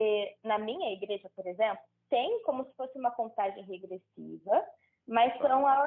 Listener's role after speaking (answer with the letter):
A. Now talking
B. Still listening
B